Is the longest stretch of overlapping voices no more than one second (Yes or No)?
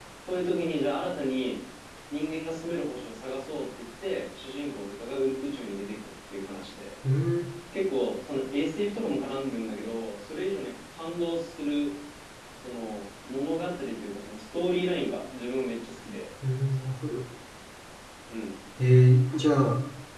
Yes